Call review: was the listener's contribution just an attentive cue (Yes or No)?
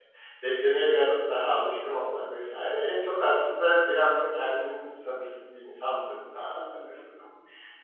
Yes